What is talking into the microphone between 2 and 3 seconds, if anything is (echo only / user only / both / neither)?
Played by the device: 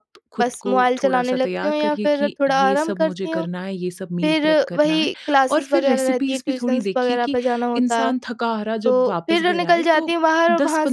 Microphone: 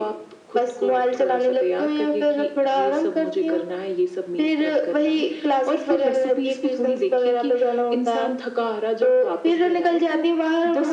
echo only